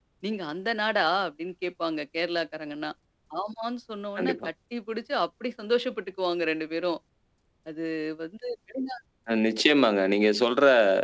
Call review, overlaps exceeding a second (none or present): none